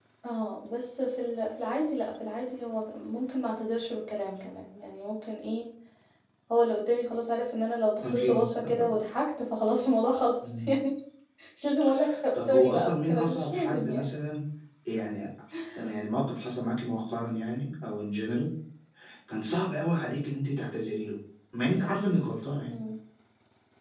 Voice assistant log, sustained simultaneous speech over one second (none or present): present